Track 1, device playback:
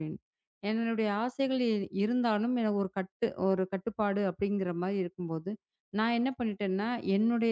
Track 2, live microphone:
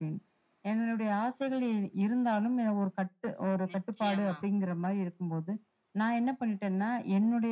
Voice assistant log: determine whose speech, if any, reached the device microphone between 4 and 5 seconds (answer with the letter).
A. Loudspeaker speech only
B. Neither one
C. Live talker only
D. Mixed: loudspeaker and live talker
D